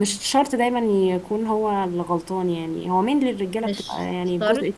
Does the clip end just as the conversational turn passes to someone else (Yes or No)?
No